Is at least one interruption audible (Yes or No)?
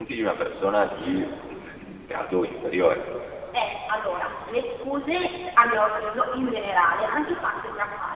No